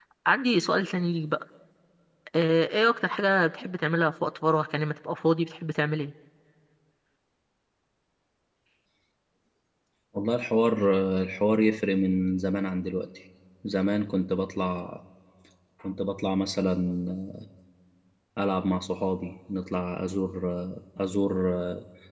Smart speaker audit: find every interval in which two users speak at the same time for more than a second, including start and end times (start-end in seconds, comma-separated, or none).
none